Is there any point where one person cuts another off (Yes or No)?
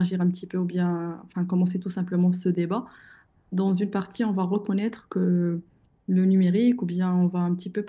No